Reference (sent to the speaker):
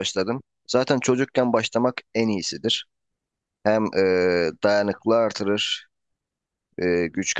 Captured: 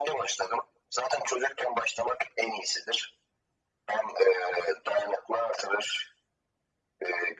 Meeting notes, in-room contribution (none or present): none